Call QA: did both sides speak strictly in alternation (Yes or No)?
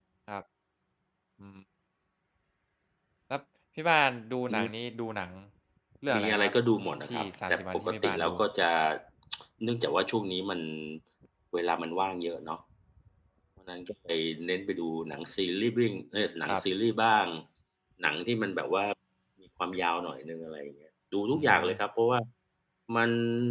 No